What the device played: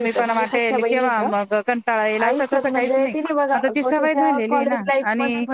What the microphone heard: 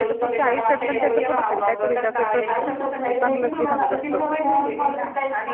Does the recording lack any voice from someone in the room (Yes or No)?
No